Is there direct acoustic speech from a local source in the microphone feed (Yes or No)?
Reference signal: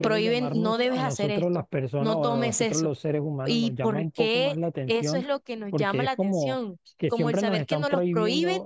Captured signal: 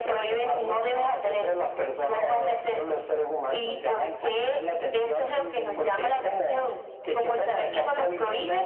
Yes